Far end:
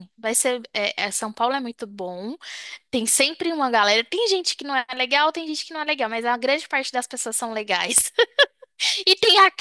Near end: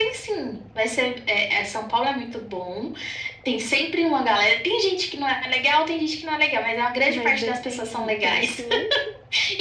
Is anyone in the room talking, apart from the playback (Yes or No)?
Yes